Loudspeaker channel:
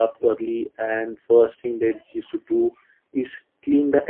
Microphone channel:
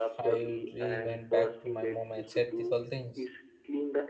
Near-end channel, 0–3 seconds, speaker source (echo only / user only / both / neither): both